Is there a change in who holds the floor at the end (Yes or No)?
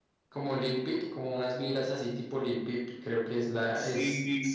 Yes